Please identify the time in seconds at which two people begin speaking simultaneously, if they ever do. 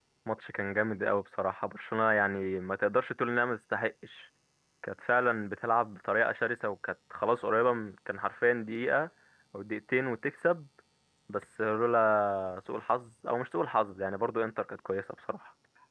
none

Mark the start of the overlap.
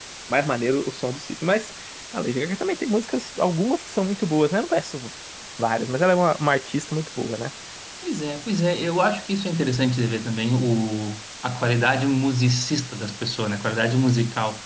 none

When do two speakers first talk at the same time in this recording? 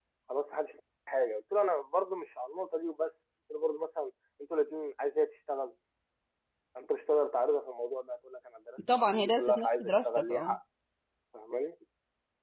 8.9 s

